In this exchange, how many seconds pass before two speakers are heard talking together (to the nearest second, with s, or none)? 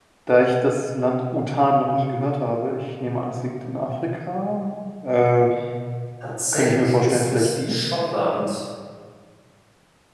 7 s